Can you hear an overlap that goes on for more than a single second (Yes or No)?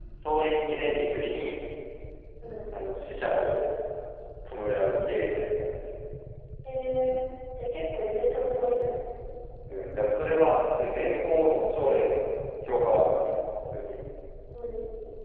No